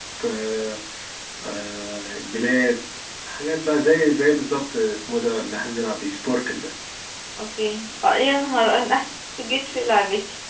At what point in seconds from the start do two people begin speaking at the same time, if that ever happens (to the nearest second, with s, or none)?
none